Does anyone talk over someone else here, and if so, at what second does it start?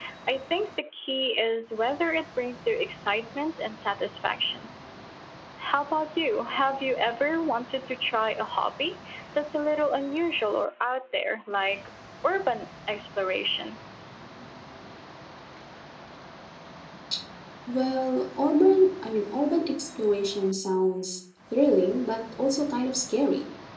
none

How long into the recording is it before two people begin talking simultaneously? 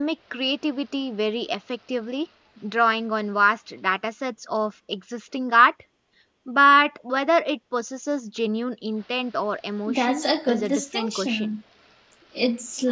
10 s

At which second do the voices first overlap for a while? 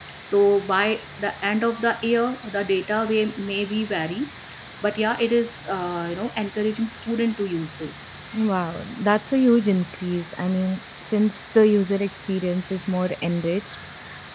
none

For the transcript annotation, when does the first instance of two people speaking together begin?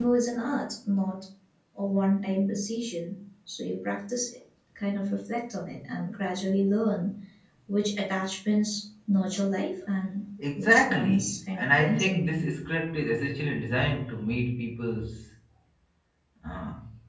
10 s

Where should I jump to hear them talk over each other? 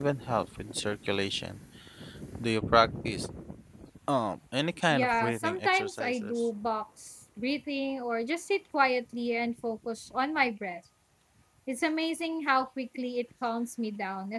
5 s

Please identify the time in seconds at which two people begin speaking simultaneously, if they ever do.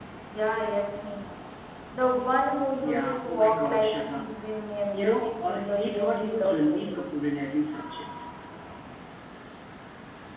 3 s

